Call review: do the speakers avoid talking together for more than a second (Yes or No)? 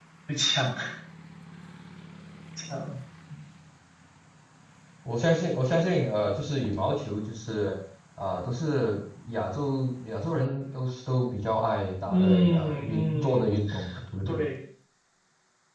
No